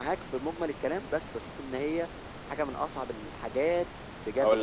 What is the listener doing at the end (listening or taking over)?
taking over